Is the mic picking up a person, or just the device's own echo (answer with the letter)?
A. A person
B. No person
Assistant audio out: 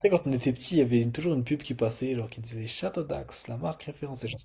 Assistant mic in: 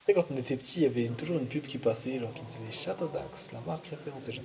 A